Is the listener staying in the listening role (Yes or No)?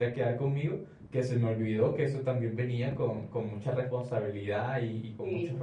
Yes